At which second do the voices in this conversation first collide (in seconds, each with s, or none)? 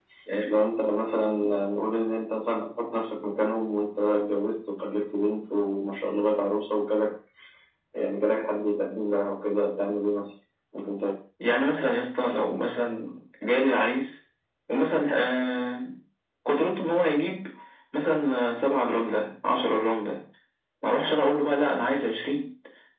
none